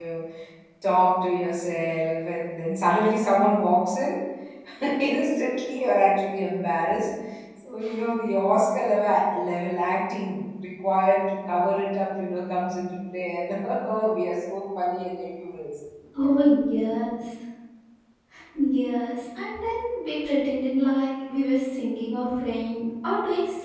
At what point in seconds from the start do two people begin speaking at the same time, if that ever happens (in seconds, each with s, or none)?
none